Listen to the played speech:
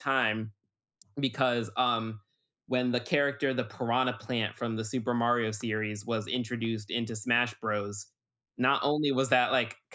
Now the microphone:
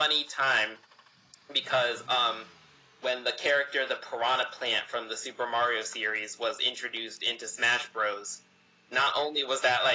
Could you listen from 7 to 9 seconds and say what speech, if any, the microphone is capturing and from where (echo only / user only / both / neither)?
echo only